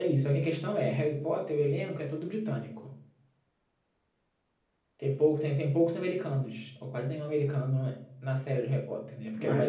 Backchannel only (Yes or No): No